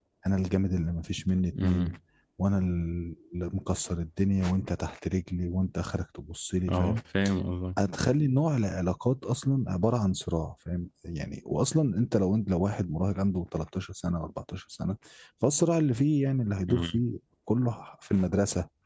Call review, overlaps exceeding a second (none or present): none